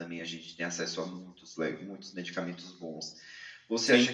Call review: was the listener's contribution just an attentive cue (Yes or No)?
Yes